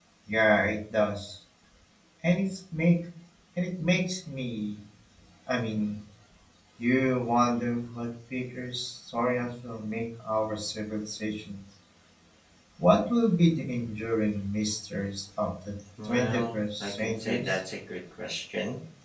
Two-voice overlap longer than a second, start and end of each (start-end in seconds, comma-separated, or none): 16.0-17.6